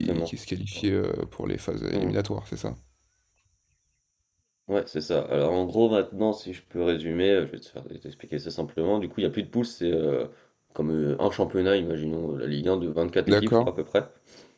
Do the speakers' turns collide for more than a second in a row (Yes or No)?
No